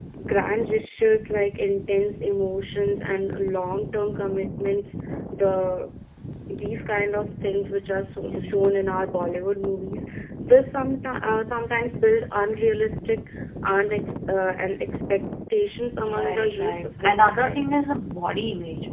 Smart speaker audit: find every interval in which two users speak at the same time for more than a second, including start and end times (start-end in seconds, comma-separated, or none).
16.0-17.6